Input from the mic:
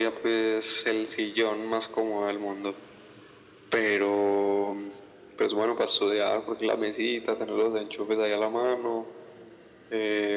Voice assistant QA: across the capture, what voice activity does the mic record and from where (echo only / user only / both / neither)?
echo only